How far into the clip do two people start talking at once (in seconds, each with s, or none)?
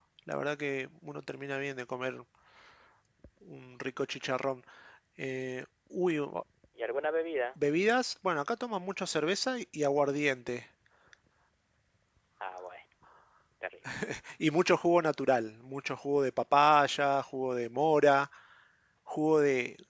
none